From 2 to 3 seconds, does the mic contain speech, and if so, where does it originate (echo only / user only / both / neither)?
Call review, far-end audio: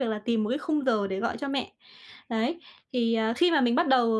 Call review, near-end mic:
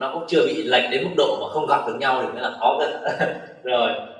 user only